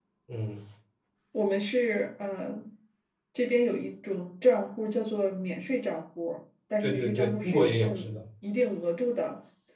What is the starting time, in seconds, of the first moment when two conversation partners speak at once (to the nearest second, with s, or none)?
7 s